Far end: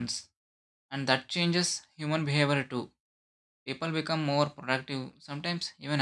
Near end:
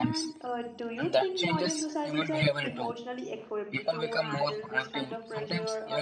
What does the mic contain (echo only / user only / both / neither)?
both